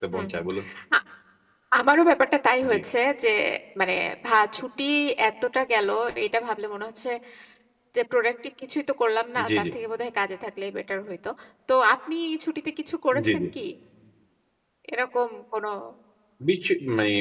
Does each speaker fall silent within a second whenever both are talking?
Yes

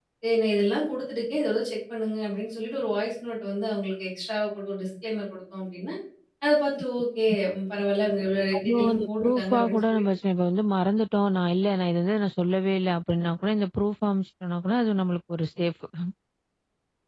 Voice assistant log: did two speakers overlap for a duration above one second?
Yes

